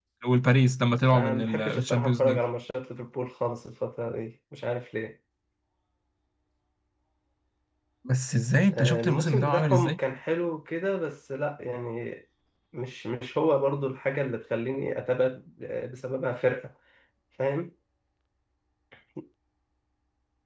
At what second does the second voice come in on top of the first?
1 s

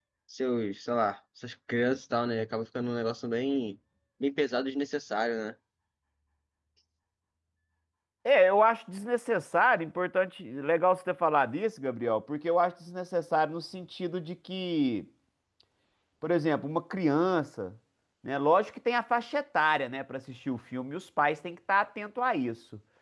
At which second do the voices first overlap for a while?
none

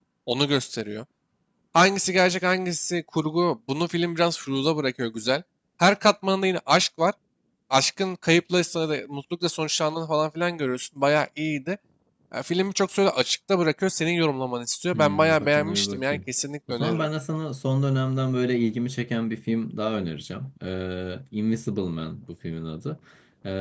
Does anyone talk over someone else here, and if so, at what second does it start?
15 s

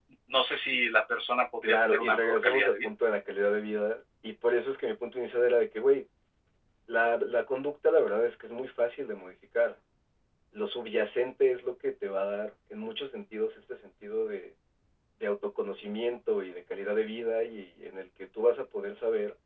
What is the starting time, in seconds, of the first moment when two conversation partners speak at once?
2 s

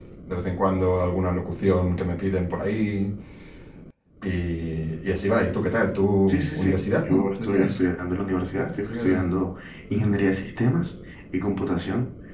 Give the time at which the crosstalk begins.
6 s

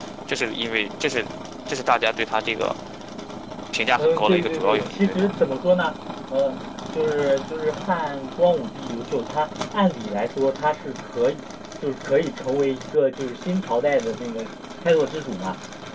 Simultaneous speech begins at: 4 s

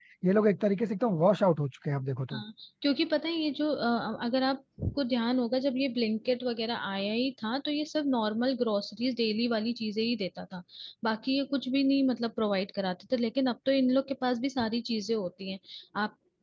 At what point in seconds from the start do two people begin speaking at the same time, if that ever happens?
none

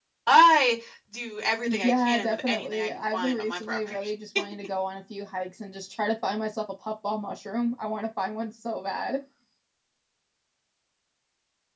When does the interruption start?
2 s

